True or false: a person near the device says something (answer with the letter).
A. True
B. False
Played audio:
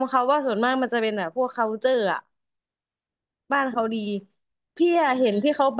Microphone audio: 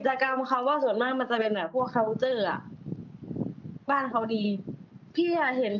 B